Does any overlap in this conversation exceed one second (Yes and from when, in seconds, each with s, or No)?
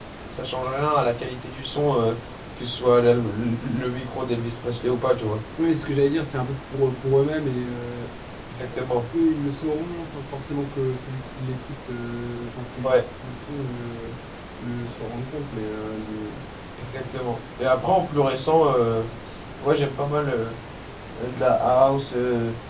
No